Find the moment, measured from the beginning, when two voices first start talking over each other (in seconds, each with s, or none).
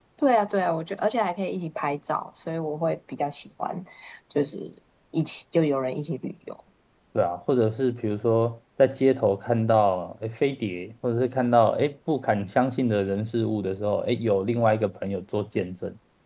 none